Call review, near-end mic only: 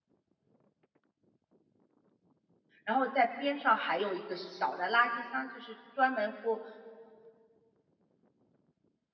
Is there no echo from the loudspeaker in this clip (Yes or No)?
Yes